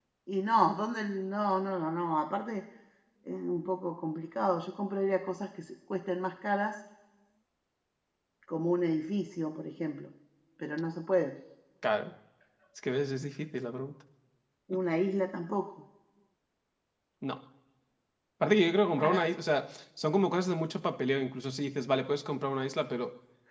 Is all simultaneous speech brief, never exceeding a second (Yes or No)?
Yes